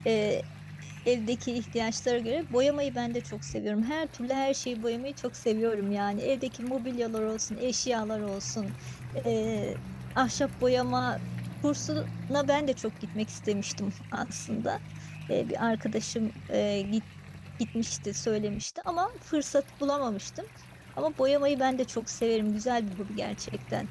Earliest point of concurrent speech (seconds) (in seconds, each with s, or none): none